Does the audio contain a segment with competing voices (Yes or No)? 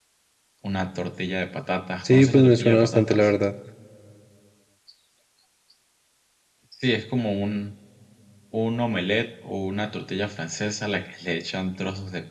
Yes